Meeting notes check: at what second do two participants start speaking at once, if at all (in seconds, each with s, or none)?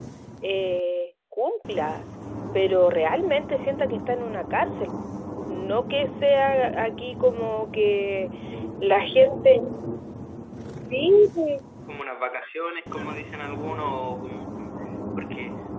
none